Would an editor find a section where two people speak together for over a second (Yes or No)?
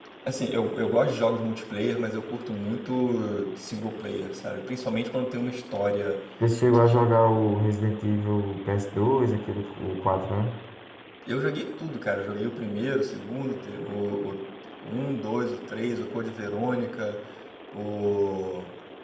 No